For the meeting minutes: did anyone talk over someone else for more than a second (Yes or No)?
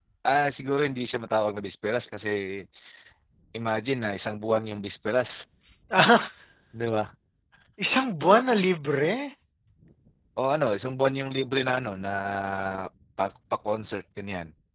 No